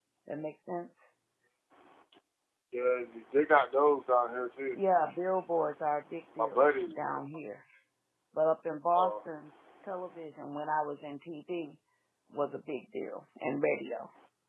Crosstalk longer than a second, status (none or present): none